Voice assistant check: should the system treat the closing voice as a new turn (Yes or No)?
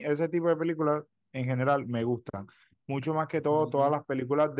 No